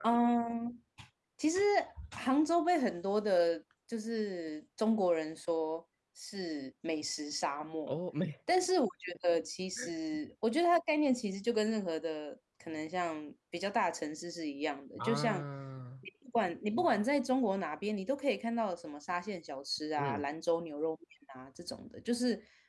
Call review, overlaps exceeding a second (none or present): none